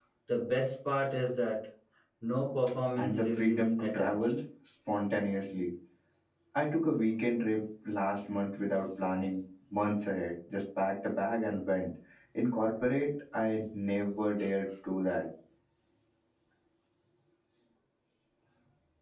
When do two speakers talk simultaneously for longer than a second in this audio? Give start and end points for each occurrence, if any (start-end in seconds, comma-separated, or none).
3.0-4.3